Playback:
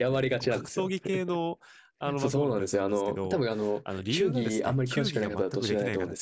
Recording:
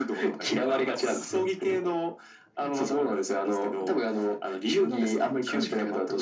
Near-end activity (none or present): present